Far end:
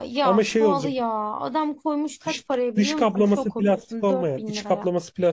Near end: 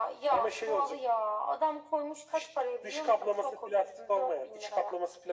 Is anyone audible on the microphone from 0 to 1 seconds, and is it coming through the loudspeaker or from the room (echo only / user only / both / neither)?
echo only